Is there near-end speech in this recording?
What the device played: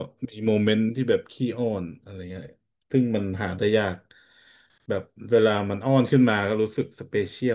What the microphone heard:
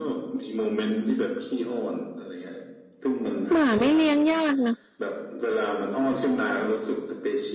Yes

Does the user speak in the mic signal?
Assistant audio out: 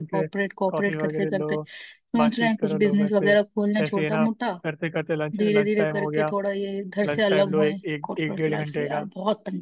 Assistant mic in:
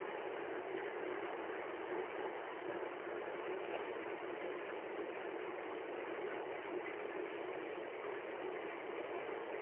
No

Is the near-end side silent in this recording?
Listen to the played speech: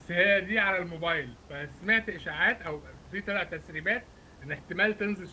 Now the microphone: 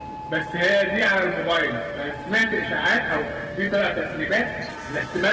Yes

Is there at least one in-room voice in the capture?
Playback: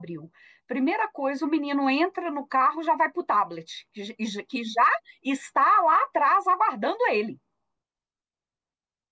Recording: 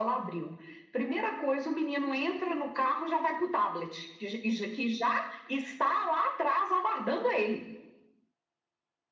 No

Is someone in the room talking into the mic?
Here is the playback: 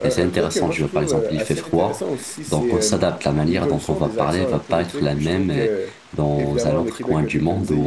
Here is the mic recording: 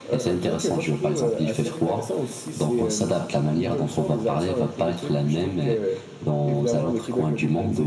No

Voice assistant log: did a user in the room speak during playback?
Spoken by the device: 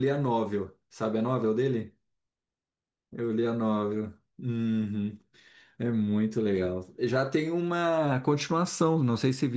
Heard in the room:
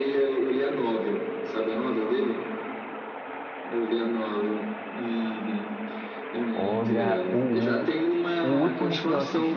Yes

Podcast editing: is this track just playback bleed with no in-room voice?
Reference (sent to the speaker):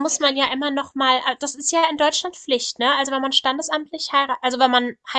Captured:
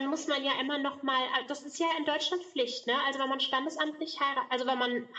Yes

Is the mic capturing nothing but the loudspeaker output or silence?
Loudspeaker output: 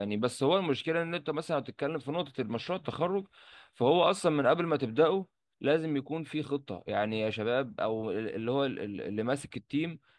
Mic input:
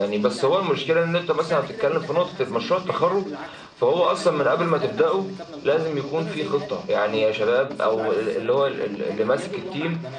No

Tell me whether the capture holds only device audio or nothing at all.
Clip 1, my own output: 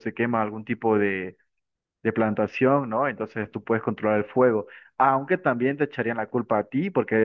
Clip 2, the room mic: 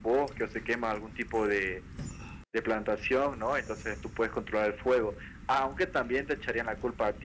Yes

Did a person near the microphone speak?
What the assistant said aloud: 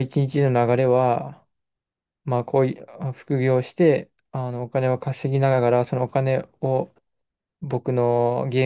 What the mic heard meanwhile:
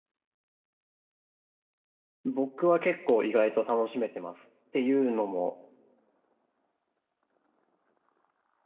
Yes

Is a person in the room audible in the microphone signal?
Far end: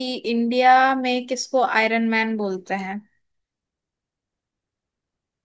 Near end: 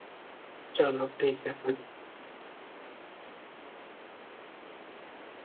Yes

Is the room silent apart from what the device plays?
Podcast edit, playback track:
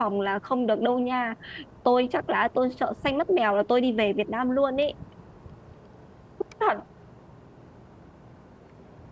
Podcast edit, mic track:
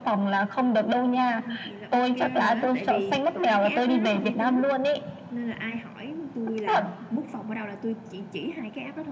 No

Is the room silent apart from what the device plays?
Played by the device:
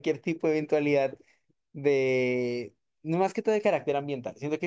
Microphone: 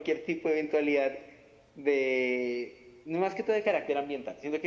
Yes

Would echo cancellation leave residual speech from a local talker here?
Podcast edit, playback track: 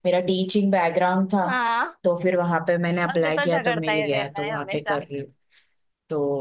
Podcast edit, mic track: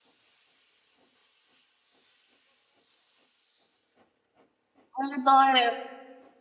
Yes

